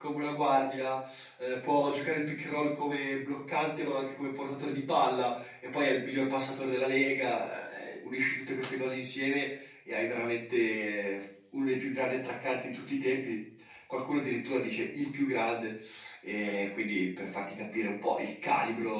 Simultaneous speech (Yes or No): No